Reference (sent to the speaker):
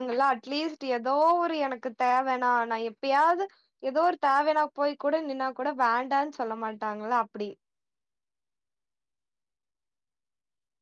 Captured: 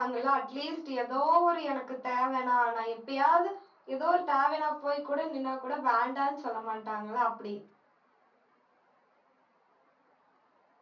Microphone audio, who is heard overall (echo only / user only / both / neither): echo only